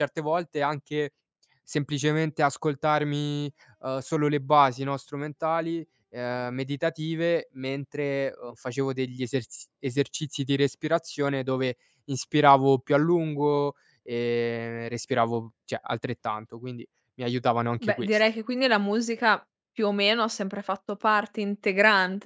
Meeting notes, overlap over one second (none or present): none